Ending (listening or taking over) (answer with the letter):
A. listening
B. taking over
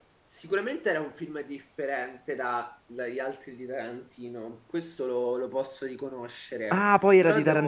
B